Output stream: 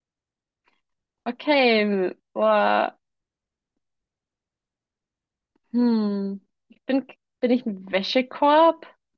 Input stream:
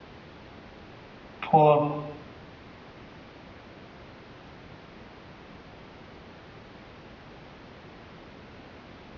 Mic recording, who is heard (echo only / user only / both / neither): user only